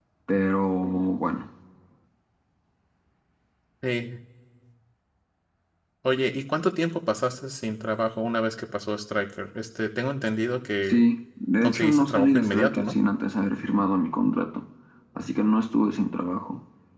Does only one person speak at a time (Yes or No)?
No